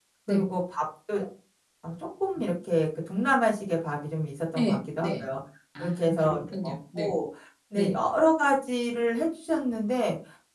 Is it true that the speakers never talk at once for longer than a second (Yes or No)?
No